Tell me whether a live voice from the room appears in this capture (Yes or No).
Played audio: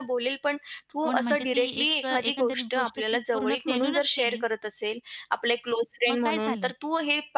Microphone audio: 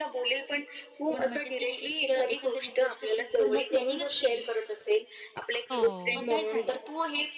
Yes